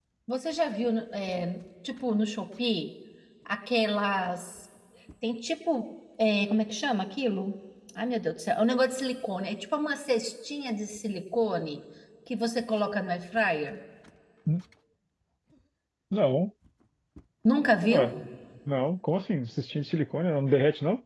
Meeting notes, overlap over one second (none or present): none